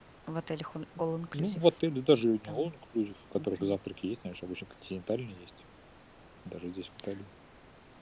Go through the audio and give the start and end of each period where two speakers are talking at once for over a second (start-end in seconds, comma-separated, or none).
none